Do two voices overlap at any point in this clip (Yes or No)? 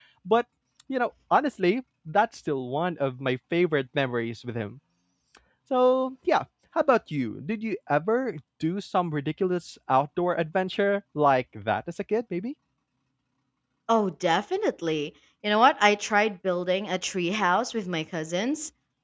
No